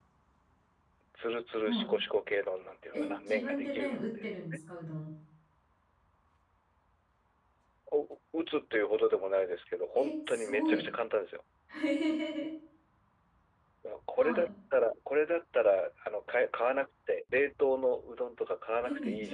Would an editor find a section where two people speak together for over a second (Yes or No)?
Yes